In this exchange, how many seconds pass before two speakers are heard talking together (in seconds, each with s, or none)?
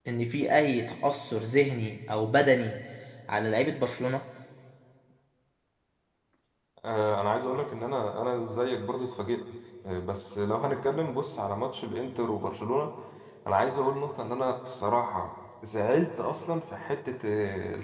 none